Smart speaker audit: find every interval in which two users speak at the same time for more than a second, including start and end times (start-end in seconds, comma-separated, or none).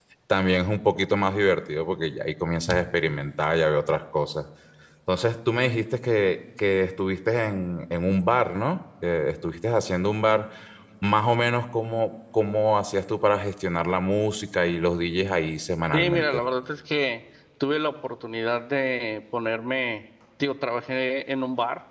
none